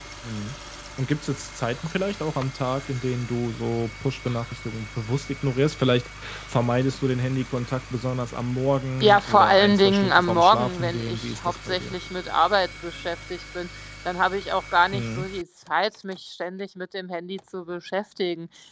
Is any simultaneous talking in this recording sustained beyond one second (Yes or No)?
Yes